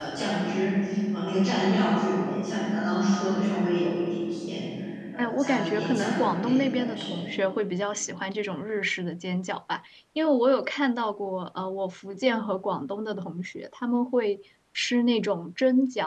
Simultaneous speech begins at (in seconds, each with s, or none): 5.2 s